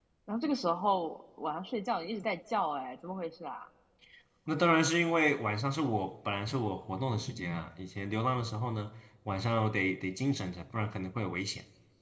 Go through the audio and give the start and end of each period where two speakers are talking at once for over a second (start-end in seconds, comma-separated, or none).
none